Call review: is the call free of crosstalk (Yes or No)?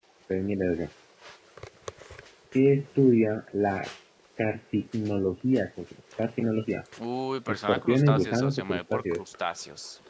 No